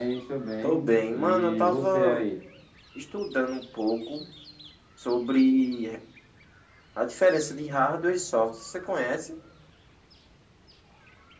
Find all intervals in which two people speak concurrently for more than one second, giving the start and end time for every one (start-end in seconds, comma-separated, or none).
0.6-2.2